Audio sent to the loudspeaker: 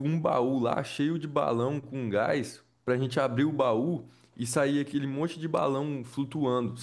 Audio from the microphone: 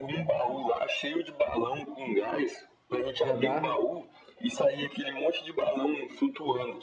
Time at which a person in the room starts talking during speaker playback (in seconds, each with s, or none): 3.2 s